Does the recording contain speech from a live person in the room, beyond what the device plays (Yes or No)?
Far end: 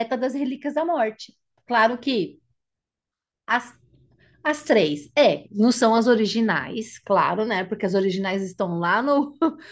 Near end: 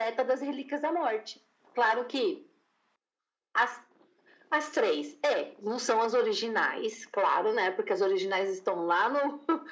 No